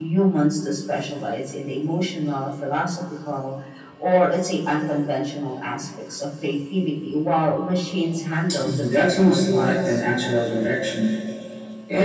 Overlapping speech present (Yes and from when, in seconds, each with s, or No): Yes, from 8.5 s